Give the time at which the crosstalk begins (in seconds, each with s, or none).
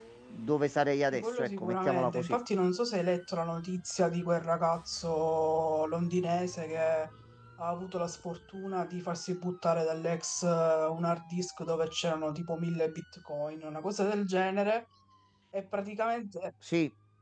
1.1 s